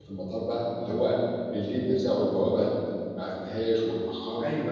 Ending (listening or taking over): taking over